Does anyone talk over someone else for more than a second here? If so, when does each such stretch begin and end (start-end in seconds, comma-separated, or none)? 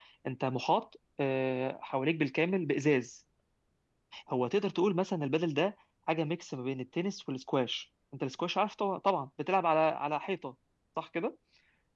none